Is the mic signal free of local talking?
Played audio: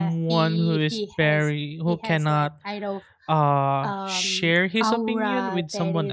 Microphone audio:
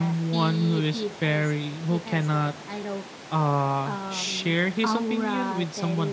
Yes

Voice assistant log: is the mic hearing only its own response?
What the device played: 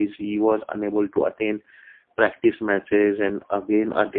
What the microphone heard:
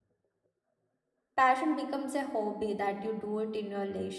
No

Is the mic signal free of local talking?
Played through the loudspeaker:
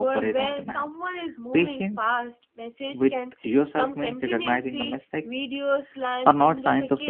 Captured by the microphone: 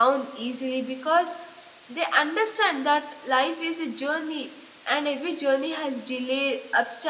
No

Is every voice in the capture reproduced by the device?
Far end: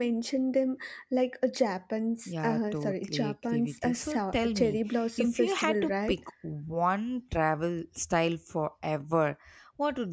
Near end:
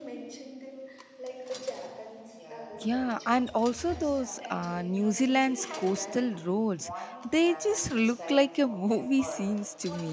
No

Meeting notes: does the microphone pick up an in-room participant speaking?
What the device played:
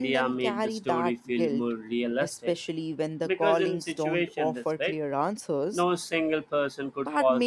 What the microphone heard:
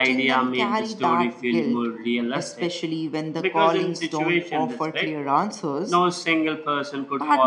No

